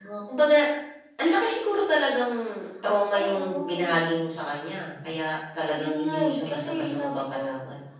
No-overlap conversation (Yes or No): No